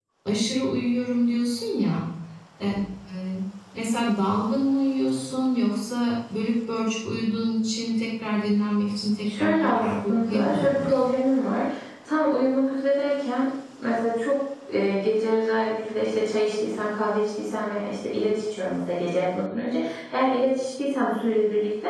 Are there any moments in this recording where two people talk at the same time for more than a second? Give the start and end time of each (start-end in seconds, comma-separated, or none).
9.2-11.0